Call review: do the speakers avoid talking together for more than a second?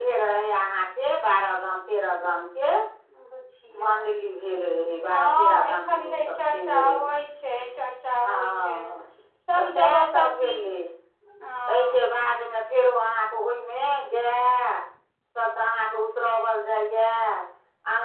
No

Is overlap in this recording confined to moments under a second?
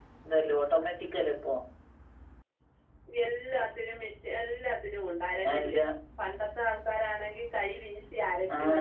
Yes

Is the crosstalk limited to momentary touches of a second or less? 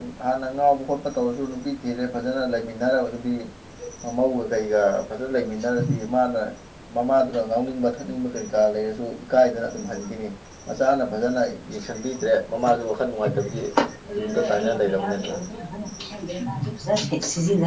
No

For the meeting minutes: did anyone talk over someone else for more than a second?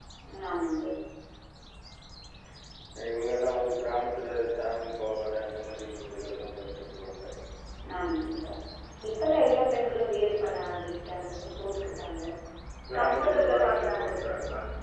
Yes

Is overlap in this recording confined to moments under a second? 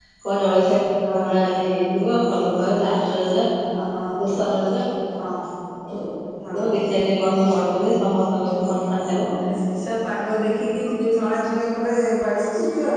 Yes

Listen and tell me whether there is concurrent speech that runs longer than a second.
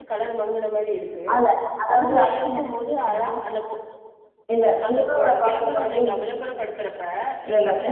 Yes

